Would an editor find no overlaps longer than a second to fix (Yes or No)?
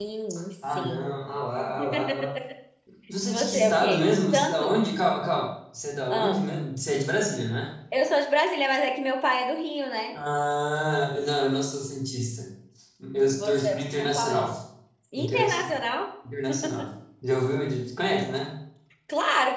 No